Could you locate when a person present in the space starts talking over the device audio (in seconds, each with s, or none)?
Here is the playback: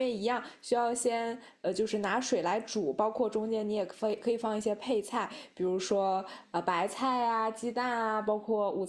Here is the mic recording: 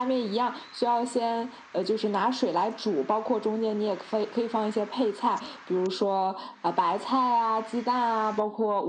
none